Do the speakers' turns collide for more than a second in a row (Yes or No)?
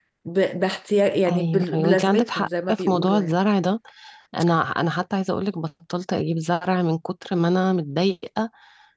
Yes